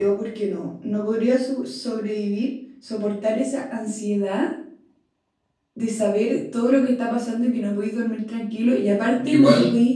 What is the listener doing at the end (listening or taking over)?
listening